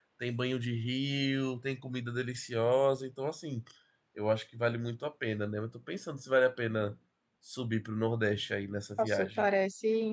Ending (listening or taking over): taking over